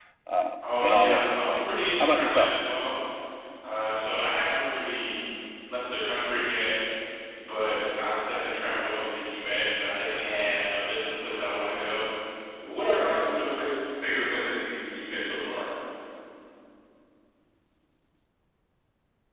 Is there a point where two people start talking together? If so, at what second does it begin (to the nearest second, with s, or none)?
1 s